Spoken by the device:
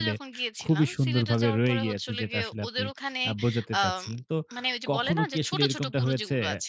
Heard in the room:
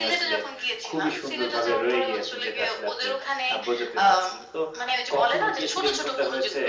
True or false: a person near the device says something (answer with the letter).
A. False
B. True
A